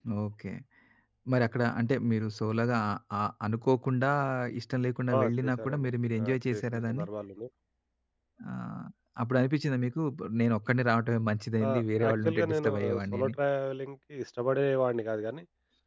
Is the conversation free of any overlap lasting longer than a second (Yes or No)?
No